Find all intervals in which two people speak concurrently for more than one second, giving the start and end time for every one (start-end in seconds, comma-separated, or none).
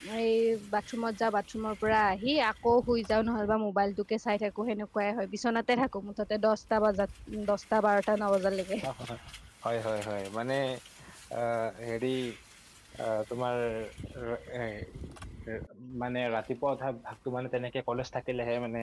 none